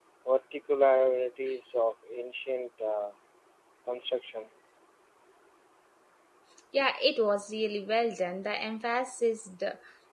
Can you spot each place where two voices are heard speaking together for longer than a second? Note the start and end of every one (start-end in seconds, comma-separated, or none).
none